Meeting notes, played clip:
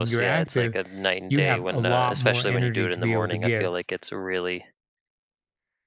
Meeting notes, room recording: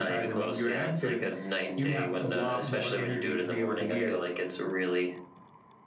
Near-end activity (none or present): none